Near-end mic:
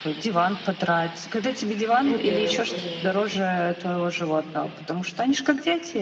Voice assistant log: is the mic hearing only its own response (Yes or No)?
No